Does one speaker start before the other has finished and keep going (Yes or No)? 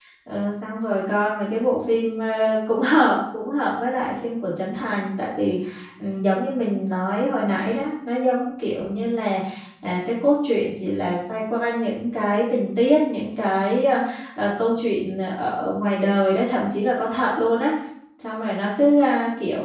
No